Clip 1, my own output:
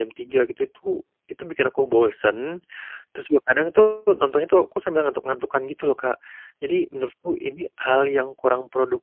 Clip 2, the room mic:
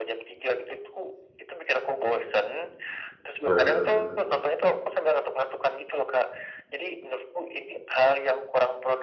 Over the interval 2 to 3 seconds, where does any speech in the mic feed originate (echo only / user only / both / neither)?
echo only